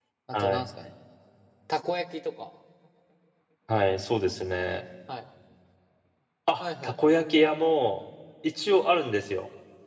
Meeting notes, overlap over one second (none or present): none